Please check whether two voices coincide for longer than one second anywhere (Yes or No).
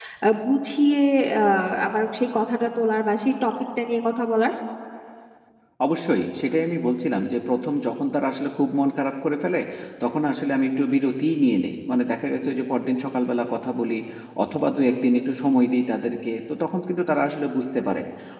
No